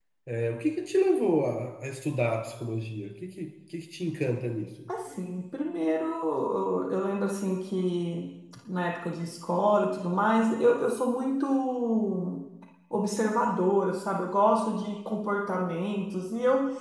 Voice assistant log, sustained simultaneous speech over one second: none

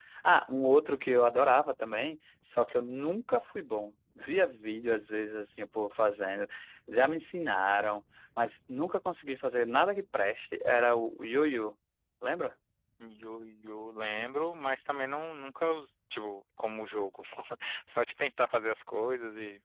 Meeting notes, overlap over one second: none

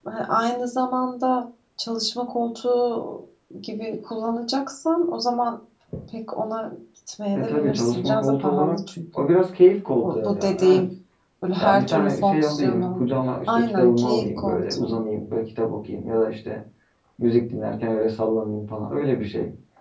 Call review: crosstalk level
present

